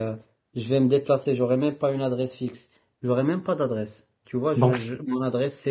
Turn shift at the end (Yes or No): No